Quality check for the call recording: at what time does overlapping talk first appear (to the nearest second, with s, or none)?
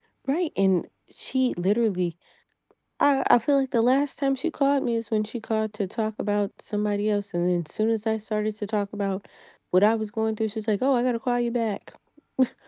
none